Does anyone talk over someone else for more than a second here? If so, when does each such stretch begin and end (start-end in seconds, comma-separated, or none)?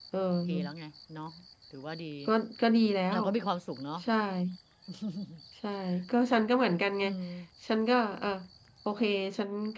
none